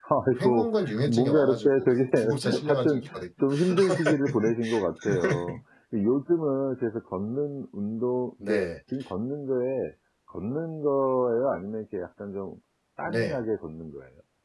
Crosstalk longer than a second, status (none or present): present